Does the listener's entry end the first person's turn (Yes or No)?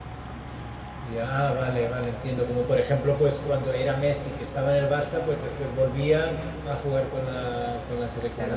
Yes